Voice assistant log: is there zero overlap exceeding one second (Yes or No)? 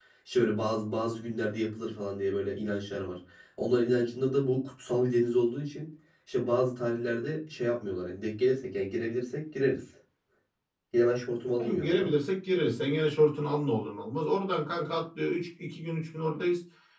Yes